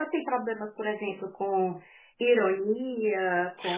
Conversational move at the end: taking over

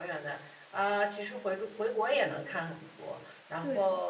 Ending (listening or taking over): listening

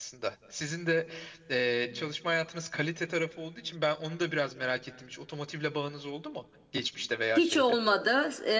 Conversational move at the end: taking over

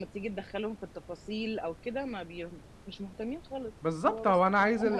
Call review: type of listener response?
taking over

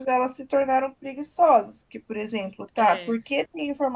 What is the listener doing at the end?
listening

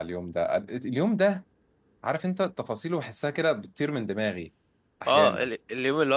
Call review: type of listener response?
taking over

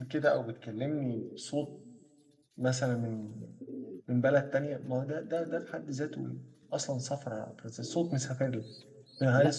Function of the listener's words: listening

